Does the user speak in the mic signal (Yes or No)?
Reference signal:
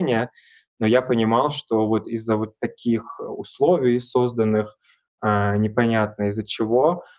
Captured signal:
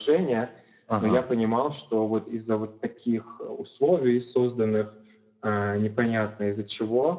Yes